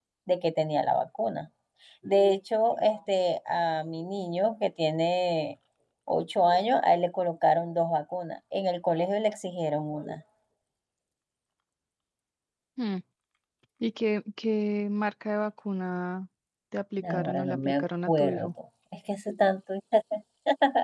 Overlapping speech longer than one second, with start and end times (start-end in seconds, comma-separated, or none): 17.0-18.5